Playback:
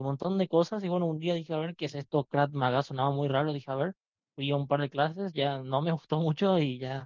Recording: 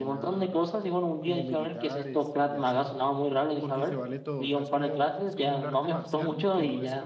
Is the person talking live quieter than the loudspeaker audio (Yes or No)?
Yes